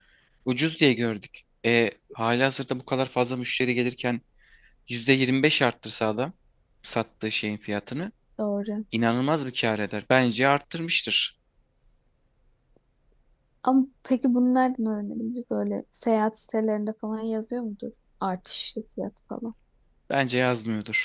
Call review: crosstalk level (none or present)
none